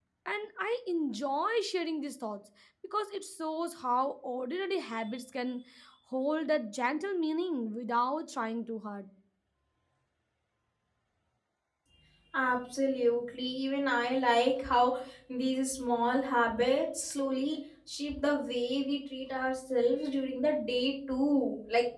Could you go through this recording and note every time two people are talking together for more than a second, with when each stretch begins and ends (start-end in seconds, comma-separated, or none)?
none